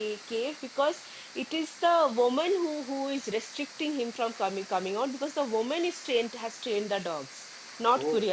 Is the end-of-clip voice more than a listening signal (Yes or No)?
Yes